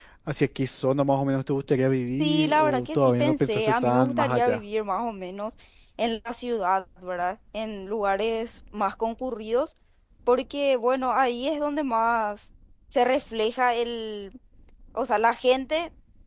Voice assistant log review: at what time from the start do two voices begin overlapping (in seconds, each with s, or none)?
2.2 s